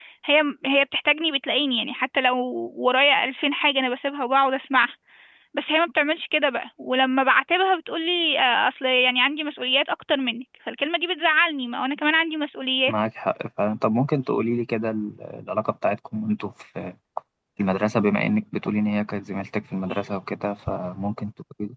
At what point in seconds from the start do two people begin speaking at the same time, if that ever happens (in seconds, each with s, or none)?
none